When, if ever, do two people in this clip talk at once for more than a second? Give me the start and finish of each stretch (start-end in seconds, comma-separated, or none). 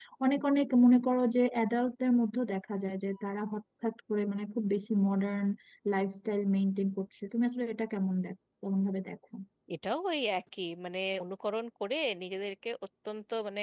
none